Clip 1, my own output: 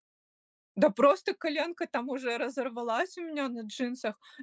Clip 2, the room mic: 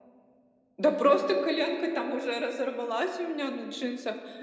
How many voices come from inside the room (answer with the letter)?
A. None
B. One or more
A